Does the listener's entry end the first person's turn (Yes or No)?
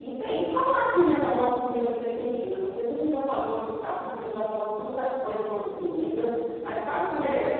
Yes